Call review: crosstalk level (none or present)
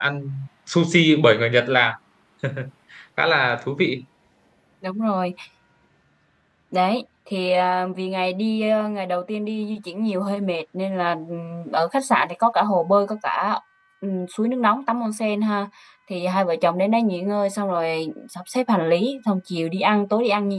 none